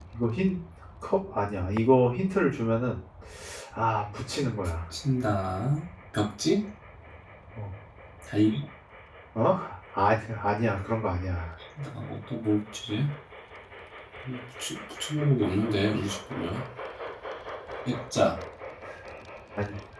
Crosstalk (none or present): none